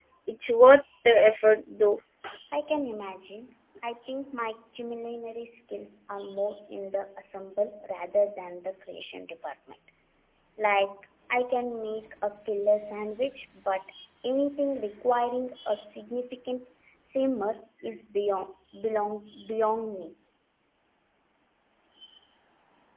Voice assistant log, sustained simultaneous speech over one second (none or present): none